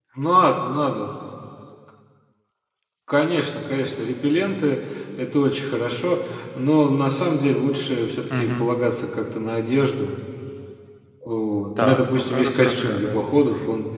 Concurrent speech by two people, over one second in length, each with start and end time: 11.8-13.2

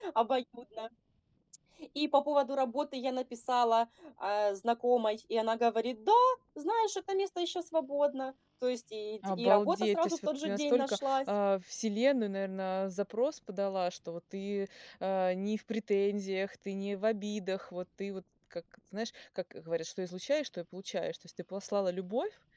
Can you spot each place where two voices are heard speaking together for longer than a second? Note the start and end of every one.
9.3-11.2

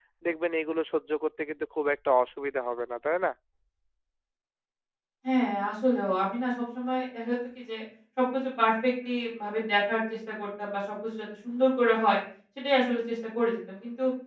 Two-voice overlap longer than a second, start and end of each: none

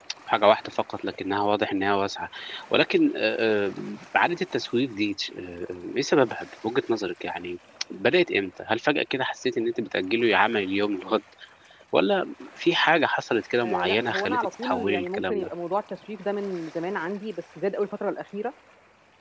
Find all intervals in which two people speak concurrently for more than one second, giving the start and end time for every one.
13.6-15.5

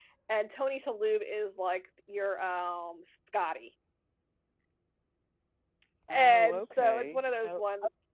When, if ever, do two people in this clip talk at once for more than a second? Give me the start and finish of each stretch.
6.1-7.6

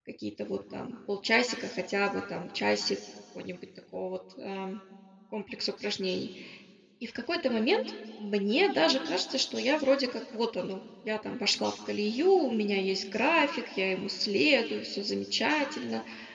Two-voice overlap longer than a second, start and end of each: none

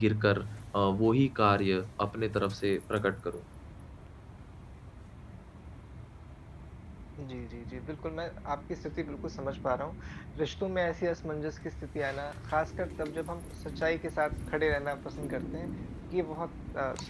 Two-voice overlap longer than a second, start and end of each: none

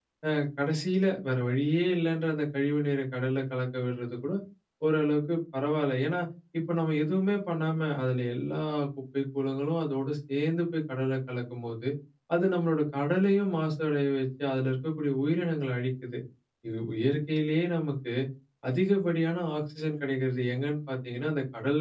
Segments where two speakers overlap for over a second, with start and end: none

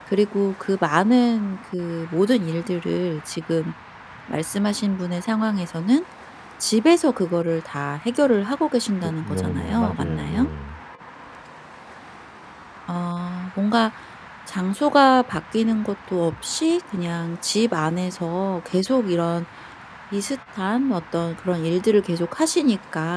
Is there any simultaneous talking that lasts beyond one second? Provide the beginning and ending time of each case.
9.0-10.5

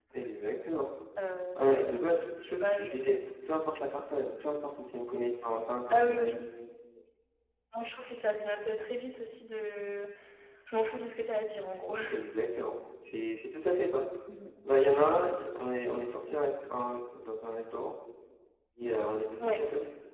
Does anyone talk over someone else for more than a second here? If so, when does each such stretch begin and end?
none

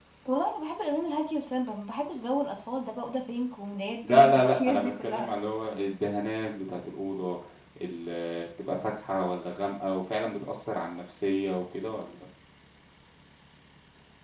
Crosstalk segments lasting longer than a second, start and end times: 4.1-5.3

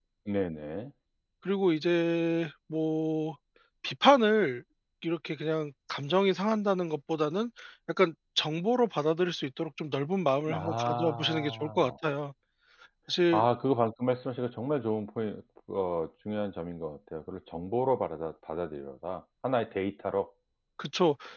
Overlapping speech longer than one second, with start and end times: 10.5-11.9

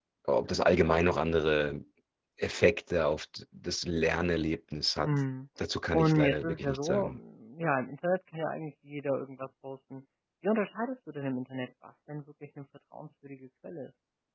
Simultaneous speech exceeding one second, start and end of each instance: 5.9-7.1

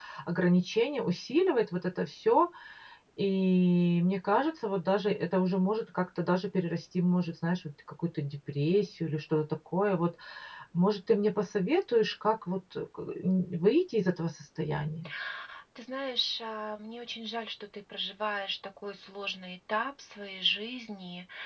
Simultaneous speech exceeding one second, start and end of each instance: none

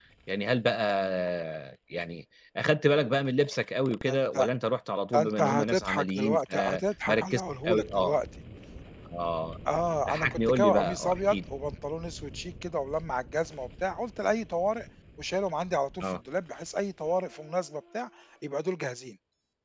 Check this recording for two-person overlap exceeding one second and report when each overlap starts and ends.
5.1-8.2, 10.1-11.4

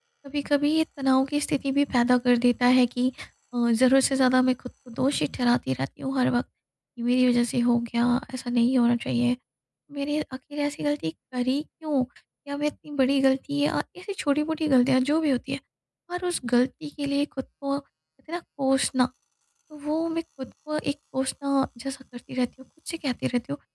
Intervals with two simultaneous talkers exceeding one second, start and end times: none

